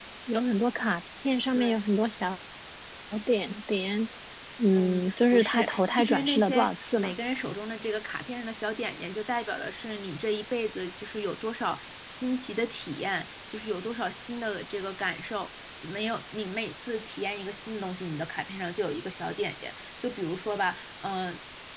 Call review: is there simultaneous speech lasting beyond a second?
Yes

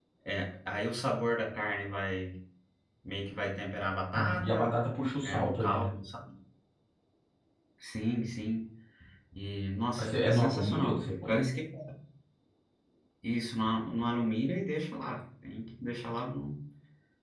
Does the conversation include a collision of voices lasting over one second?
Yes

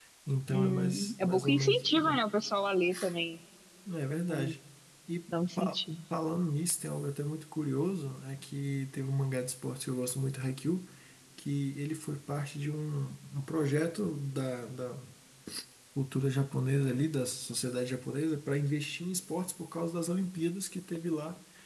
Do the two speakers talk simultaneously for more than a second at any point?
Yes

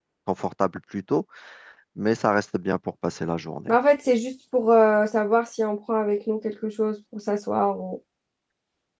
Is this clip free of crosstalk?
Yes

